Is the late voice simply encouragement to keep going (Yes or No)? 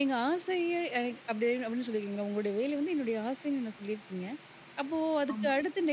Yes